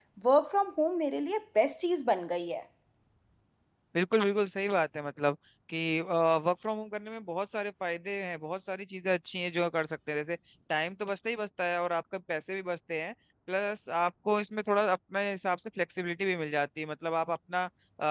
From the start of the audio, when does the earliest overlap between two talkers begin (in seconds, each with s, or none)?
none